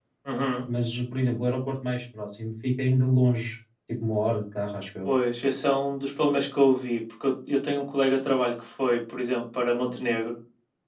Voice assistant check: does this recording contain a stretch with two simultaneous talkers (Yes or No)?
No